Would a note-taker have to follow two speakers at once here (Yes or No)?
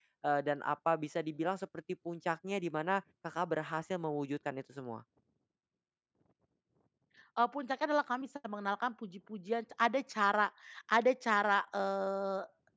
No